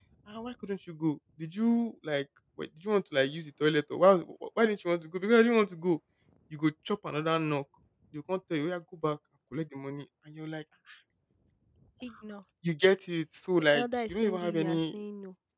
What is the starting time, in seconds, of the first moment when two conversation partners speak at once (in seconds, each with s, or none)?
13.7 s